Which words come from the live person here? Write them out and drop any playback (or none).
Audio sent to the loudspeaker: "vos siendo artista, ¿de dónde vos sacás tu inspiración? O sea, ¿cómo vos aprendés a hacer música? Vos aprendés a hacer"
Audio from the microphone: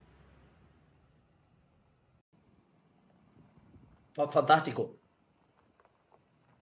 fa- fantástico,